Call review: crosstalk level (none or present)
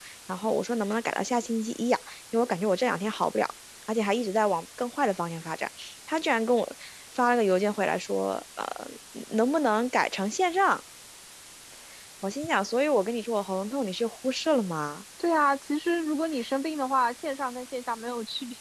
none